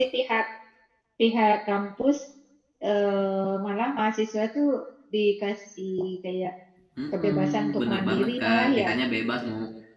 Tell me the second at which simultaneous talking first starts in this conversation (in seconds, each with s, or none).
7.2 s